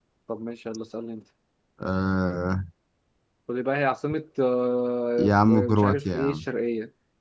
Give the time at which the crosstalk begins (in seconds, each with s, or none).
5.2 s